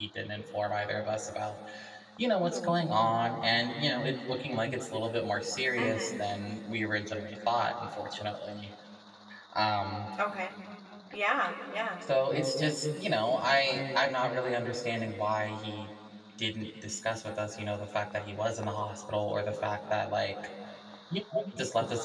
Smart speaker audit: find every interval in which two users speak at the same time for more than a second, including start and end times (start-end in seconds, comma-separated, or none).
none